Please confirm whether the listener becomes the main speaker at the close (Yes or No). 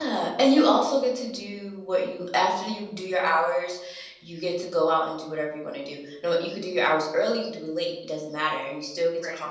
No